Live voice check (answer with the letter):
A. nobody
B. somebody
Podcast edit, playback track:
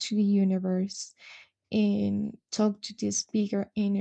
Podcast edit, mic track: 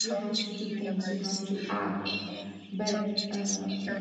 B